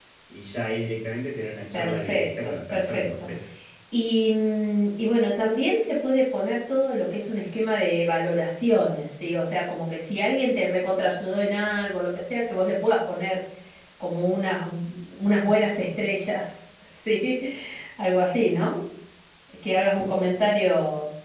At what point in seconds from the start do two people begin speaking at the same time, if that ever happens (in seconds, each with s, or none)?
1.7 s